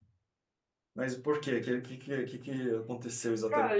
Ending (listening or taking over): taking over